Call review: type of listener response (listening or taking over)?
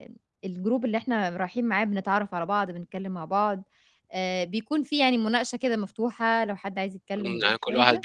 taking over